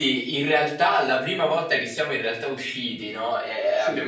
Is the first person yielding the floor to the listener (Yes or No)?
No